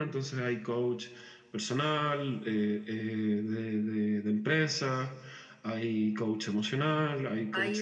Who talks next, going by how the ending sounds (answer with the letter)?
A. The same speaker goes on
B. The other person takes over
B